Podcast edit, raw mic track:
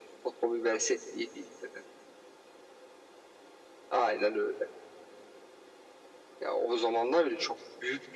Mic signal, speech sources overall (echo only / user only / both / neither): echo only